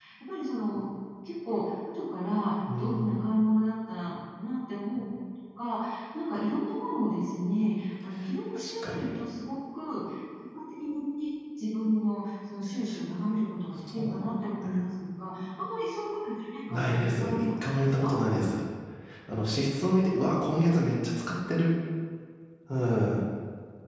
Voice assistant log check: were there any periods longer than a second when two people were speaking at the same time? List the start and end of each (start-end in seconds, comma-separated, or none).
16.7-18.1